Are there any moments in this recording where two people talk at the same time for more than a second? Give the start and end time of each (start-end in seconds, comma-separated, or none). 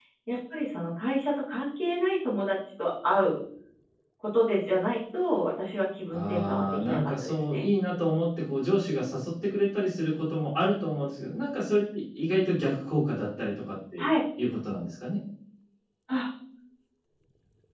6.1-7.6